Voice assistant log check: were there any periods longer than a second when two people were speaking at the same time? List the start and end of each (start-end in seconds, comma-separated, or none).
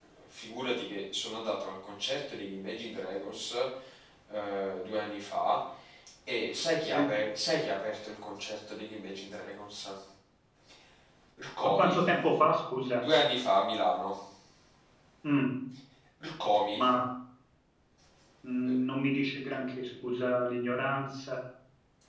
none